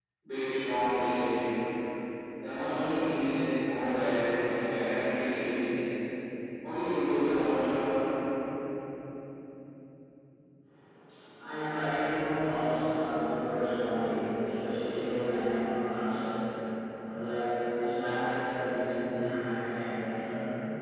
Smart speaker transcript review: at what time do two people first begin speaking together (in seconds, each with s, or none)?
none